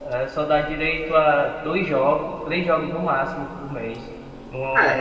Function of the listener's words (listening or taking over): listening